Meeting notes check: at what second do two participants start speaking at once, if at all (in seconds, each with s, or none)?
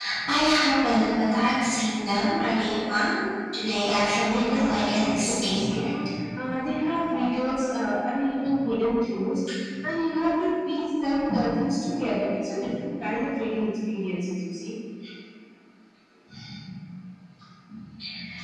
4.0 s